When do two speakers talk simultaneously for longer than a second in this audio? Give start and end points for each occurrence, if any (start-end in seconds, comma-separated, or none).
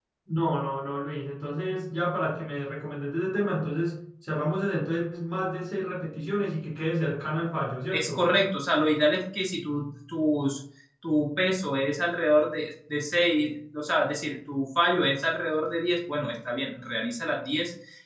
none